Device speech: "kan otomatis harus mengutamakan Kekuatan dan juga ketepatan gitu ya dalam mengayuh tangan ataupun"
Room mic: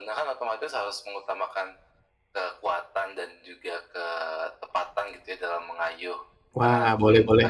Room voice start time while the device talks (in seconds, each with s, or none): 6.6 s